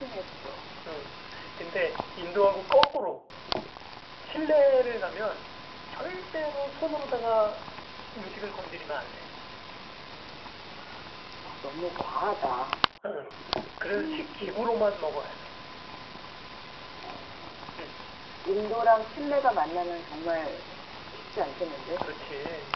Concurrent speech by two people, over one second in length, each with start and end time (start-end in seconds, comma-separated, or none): none